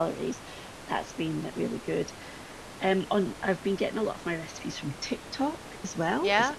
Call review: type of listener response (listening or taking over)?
listening